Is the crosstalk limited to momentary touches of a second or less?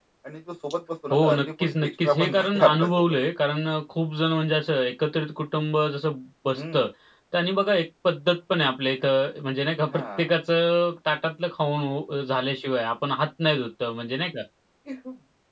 No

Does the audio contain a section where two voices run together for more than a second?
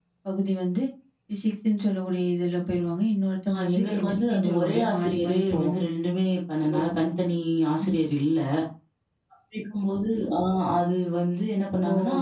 Yes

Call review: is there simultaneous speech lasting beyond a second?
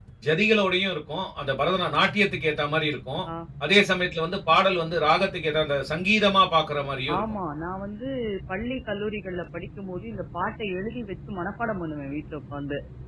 No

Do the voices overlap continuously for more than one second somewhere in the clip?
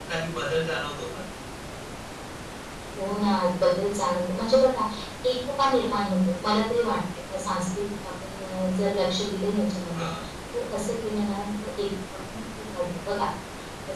No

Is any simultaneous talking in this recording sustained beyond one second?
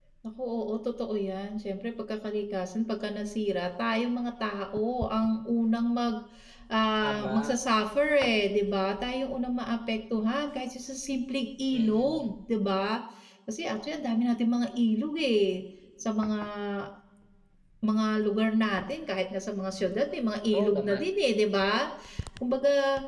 No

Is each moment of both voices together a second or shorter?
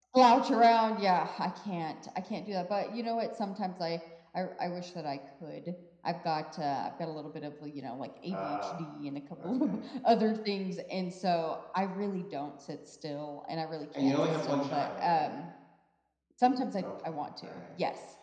No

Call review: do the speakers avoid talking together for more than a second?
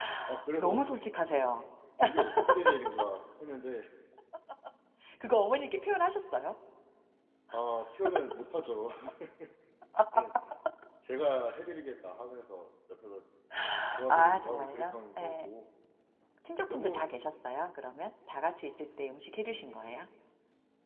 No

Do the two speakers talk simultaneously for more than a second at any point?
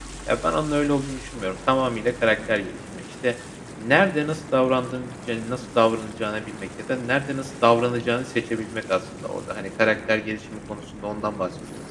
No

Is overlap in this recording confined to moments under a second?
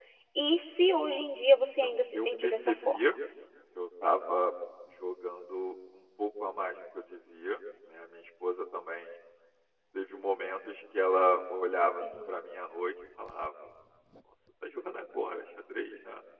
No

